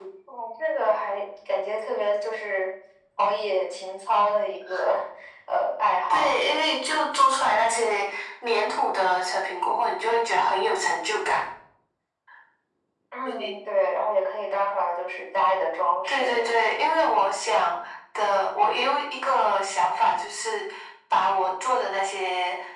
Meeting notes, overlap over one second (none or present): none